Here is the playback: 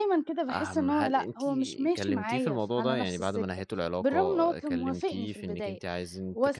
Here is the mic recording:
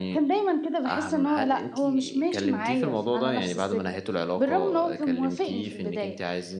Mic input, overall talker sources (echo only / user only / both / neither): echo only